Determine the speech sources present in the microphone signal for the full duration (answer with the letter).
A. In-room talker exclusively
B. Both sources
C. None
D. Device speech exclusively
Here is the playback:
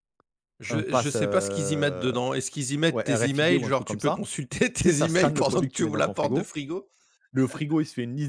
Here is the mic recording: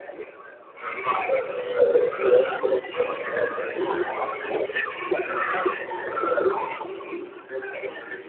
D